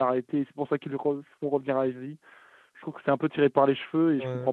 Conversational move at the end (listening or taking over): taking over